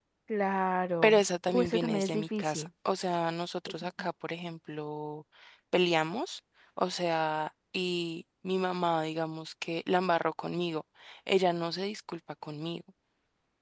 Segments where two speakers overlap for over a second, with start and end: 1.0-2.7

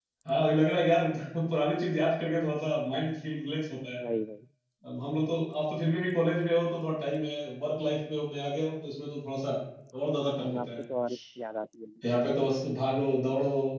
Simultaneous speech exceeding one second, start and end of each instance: none

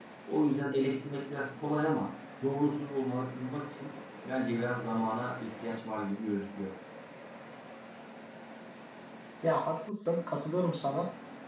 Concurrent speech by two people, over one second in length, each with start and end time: none

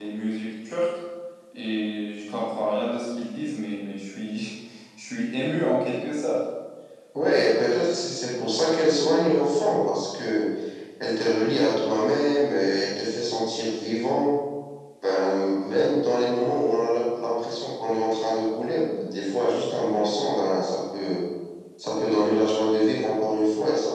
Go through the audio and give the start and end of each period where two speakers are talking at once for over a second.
none

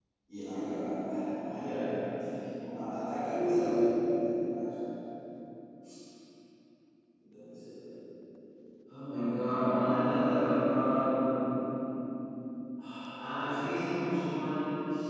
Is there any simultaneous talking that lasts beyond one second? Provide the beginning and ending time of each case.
none

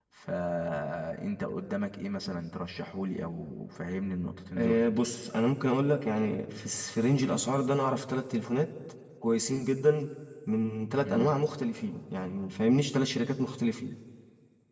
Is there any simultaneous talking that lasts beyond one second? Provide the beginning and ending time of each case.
none

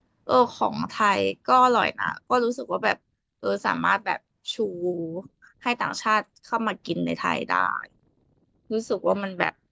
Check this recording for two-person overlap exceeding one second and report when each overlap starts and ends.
none

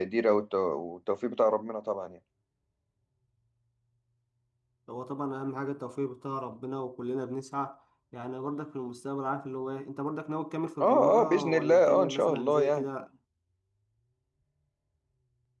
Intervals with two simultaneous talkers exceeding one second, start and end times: 10.8-12.8

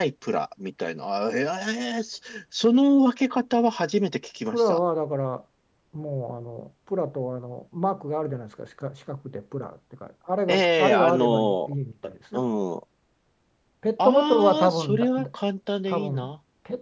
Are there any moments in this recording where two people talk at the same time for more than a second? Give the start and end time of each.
10.5-11.7, 14.0-15.3

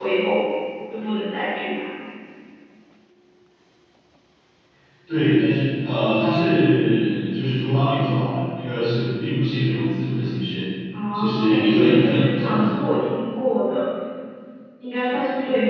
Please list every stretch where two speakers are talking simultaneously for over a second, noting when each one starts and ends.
11.1-12.6

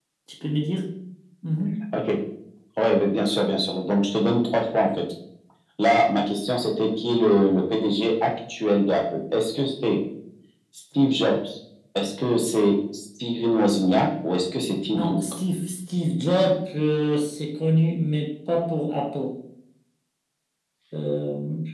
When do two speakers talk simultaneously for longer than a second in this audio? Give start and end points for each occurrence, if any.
none

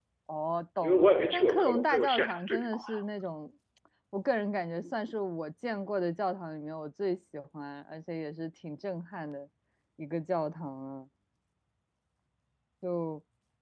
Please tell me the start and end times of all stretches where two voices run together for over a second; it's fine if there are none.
0.8-2.8

